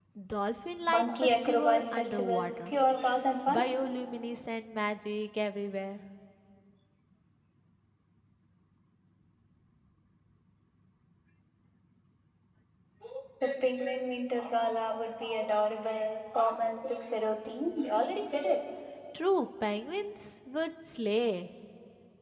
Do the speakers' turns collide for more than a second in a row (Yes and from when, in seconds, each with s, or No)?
Yes, from 0.9 s